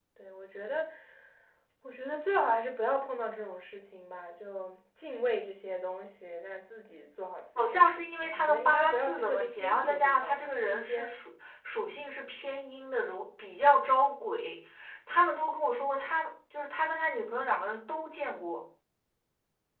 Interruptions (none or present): present